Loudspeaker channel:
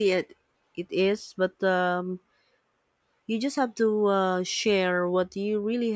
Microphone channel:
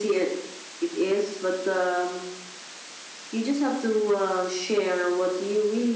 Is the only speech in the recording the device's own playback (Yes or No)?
Yes